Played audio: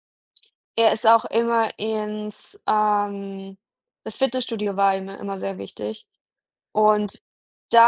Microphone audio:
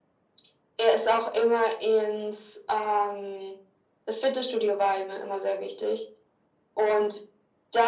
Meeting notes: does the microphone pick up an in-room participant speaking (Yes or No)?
No